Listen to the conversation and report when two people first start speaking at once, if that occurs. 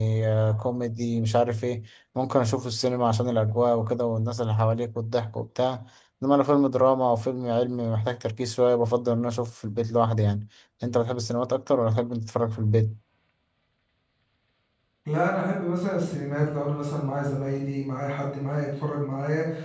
none

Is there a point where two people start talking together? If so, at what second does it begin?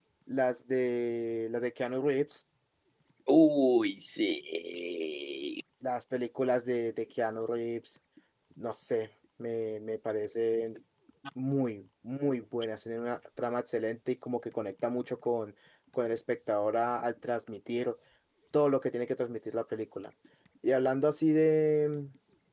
none

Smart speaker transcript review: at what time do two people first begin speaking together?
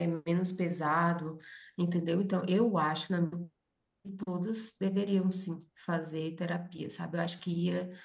none

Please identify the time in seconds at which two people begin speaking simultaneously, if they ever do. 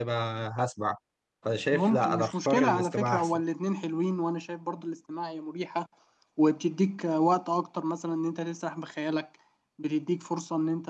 1.7 s

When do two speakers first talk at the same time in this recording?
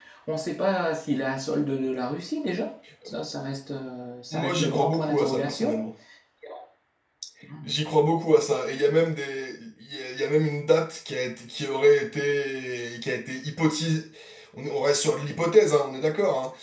4.3 s

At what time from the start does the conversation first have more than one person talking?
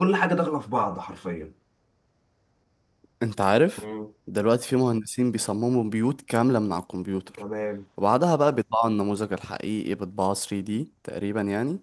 none

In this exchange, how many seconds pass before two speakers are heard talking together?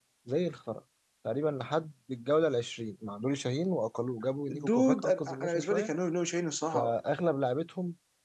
4.7 s

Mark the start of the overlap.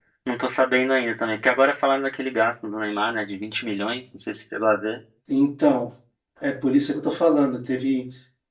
none

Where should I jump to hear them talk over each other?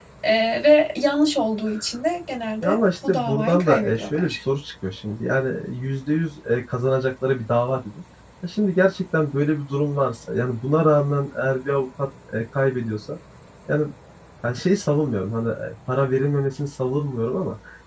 2.6 s

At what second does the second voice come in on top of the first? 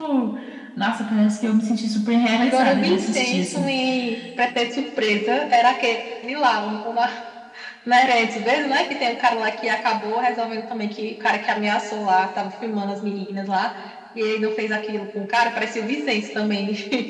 2.4 s

